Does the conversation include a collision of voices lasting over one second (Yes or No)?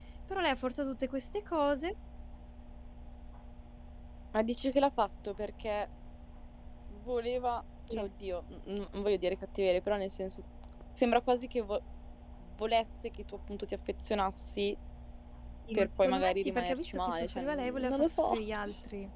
Yes